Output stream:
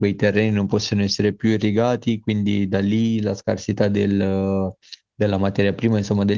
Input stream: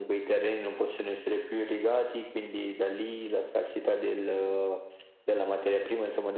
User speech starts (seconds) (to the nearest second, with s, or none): none